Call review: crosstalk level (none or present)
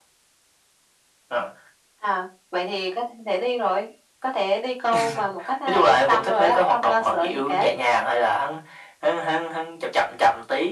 present